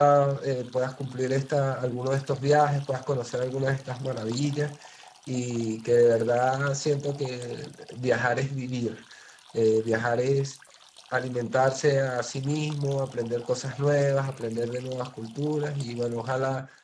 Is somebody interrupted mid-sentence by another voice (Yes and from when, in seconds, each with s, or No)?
No